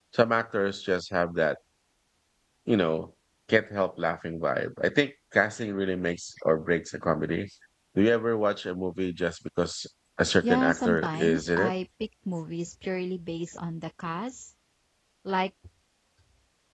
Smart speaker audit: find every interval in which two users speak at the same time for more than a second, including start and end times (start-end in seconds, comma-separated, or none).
10.4-11.7